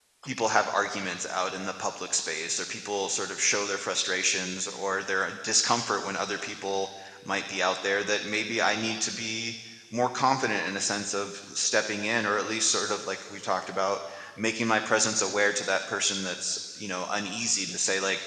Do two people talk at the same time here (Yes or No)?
No